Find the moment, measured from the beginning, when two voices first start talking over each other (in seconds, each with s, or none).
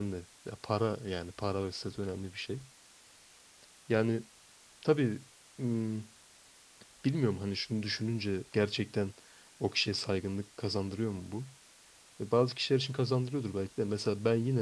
none